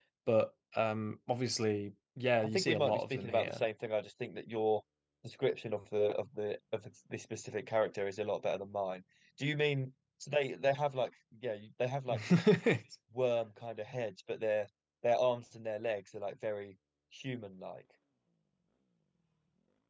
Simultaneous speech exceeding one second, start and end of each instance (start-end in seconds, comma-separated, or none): 2.4-3.6